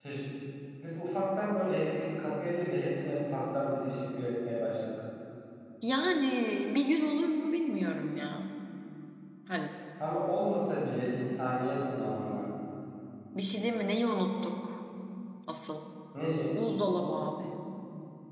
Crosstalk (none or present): none